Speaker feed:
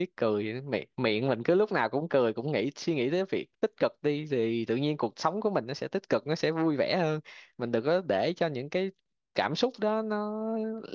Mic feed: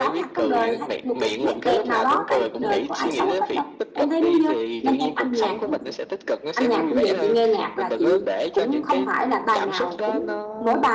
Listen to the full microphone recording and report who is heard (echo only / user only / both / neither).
both